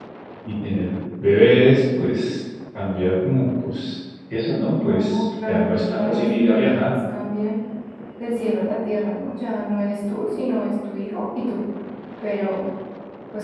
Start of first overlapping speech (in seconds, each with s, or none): 4.8 s